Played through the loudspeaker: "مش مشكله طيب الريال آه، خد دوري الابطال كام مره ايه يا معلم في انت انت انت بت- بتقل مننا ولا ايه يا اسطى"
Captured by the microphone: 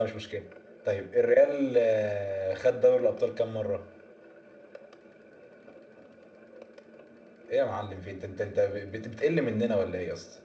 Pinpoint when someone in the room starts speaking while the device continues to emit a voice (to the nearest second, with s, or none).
none